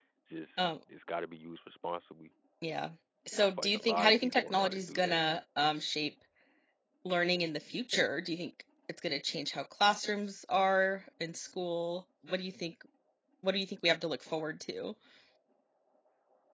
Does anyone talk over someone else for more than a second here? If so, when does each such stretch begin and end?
3.4-5.2

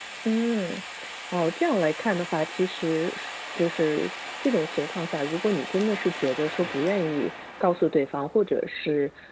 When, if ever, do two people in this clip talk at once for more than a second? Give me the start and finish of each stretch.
none

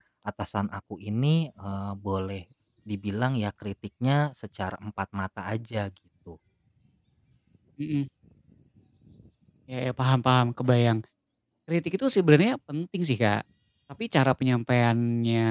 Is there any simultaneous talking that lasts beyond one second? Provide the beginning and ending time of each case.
none

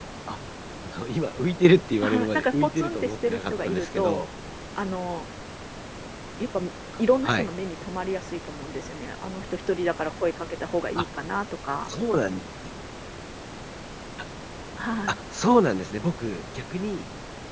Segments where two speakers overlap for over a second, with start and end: 2.0-4.2

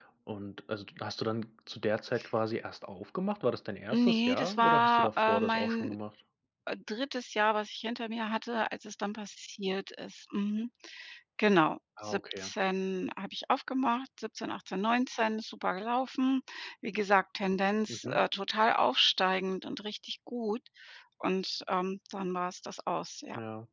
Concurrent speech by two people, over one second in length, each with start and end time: 3.9-5.9

